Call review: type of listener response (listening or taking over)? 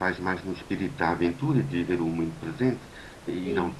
listening